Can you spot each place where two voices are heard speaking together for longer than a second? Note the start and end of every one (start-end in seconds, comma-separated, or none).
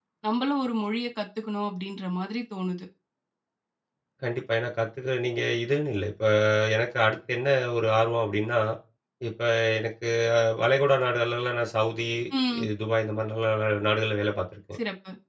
none